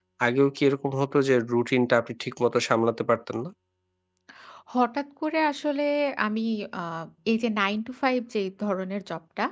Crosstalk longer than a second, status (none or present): none